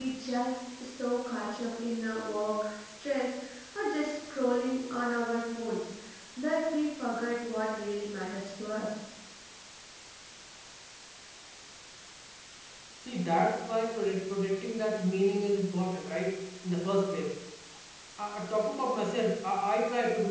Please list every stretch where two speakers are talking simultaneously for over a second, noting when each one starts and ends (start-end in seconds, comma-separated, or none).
none